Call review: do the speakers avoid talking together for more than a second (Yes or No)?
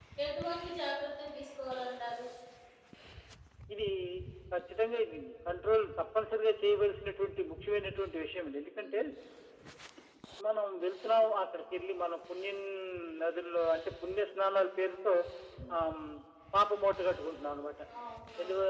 Yes